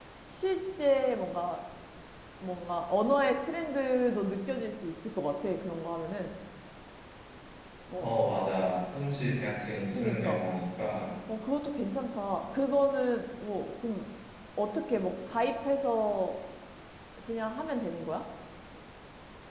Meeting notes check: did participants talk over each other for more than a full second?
No

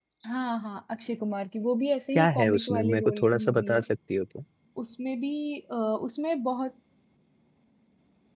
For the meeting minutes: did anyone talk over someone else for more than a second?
Yes, from 2.1 s

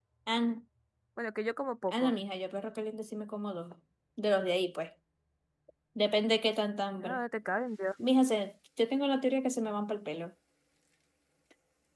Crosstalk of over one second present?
No

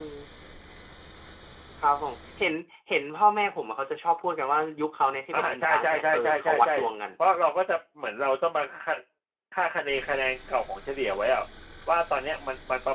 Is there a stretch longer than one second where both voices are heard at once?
Yes, from 5.3 s

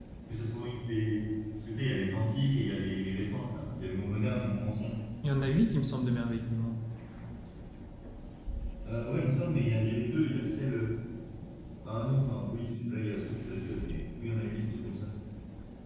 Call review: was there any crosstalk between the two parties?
No

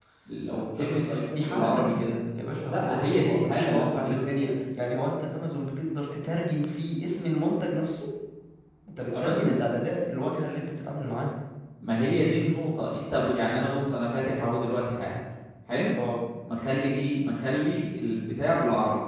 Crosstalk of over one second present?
Yes, from 0.5 s

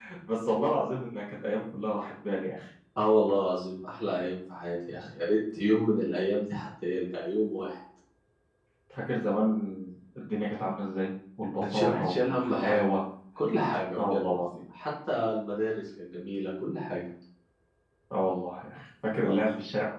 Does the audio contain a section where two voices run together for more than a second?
Yes, from 11.6 s

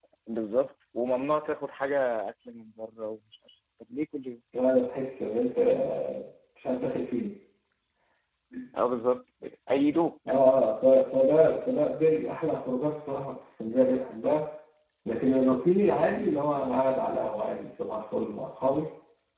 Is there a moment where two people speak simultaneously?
No

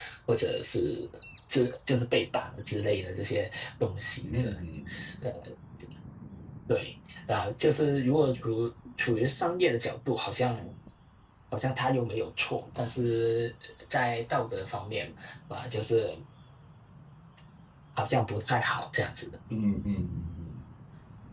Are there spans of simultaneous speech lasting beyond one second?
No

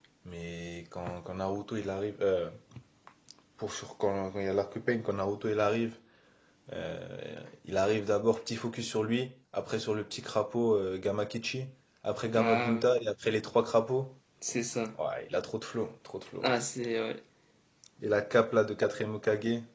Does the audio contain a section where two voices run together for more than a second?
No

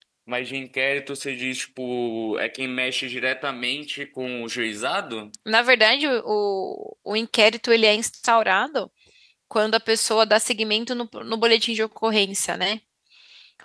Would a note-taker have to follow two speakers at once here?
No

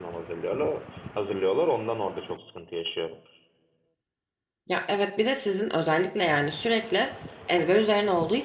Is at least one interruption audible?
No

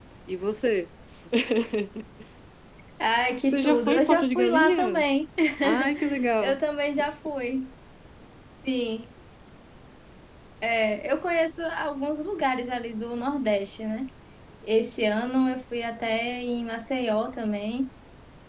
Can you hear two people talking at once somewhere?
Yes, from 3.4 s

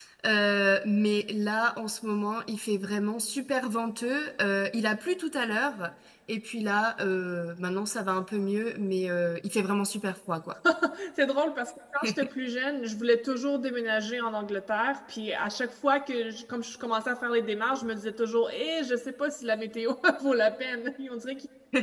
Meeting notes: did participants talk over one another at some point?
No

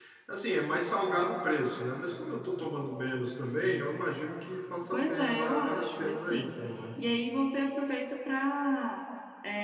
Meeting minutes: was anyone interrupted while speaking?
Yes, from 4.9 s

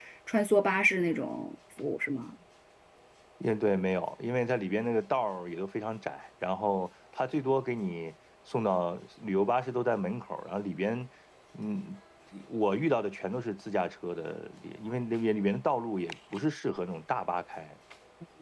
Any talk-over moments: No

